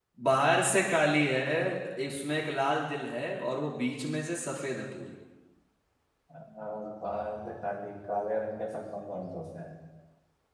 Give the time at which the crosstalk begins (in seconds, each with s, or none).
none